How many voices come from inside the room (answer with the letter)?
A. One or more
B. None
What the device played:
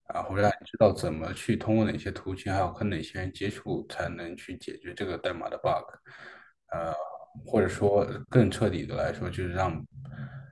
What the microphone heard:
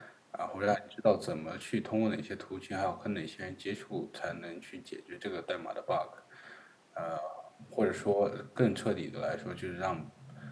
B